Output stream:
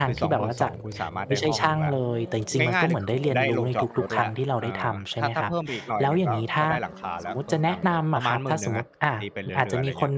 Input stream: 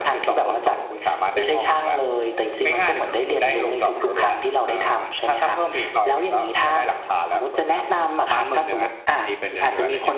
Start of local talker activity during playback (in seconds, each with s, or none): none